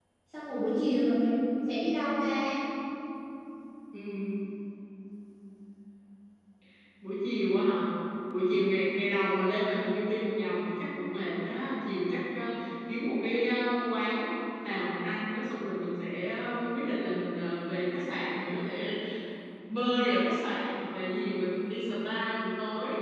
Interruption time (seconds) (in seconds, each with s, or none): none